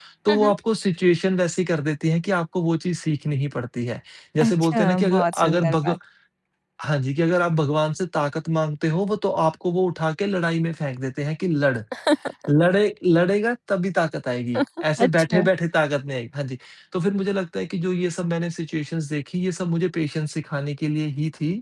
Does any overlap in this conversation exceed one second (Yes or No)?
Yes